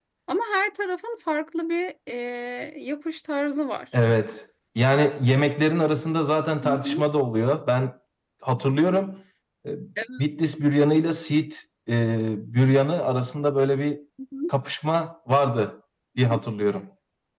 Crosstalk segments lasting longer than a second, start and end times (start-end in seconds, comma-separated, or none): none